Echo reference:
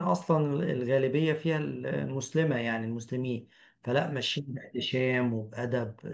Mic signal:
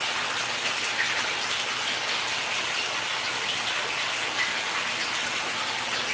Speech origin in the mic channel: neither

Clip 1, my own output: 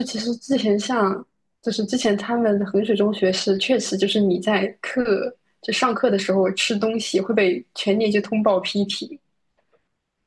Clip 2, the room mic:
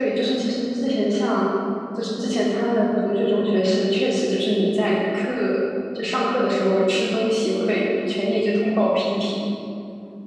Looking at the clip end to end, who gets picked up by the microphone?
echo only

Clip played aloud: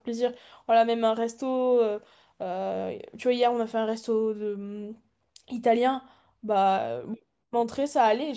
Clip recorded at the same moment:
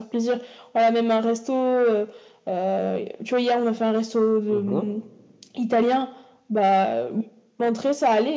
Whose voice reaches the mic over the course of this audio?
both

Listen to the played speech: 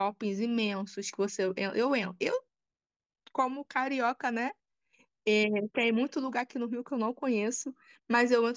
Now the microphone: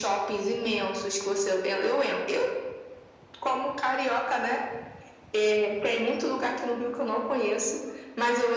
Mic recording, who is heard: echo only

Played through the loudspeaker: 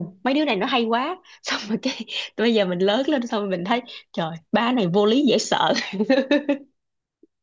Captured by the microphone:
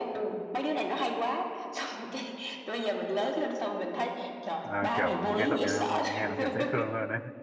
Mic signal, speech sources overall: both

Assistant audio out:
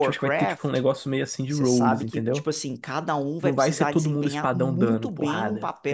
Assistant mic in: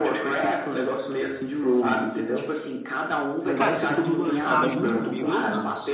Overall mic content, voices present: both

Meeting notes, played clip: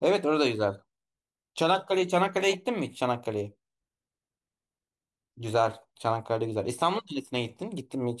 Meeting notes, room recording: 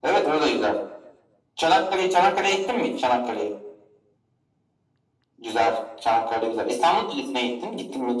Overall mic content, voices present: echo only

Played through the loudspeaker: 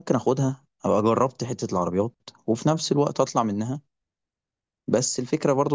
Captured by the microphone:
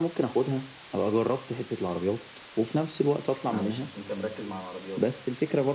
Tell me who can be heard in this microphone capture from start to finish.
both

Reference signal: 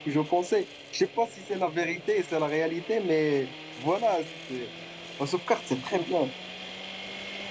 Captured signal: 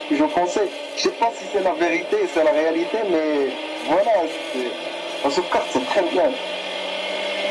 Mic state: echo only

